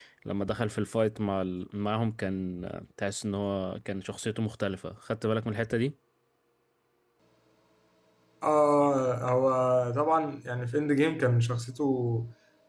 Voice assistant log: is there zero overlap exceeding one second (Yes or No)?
Yes